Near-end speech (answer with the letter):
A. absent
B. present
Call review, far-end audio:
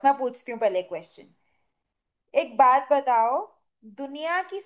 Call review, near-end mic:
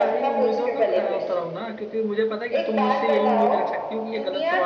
B